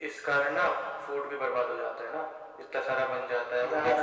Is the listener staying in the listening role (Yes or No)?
Yes